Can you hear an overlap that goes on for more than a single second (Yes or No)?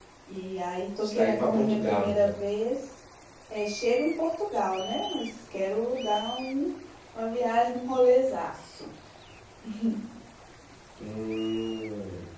Yes